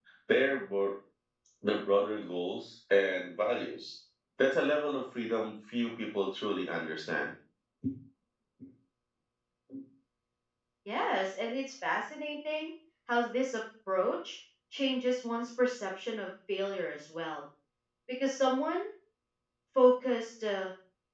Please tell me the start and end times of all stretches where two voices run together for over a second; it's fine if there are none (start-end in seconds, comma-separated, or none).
none